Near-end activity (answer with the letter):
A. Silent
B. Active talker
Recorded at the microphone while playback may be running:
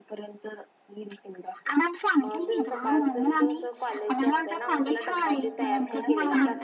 B